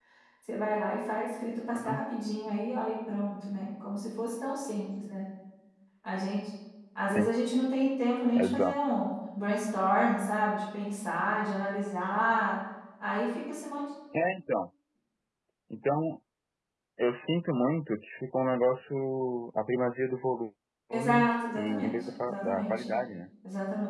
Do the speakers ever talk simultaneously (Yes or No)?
Yes